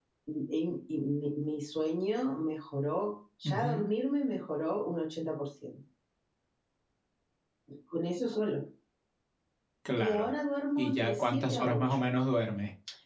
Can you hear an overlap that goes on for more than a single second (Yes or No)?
Yes